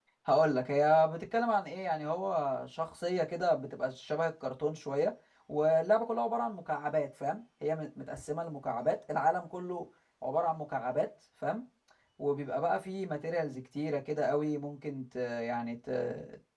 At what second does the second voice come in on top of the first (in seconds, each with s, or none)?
none